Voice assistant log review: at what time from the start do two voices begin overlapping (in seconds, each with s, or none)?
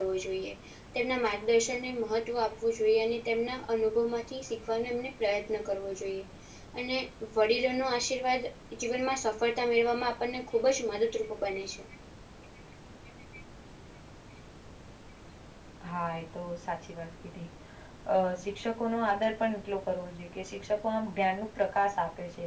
none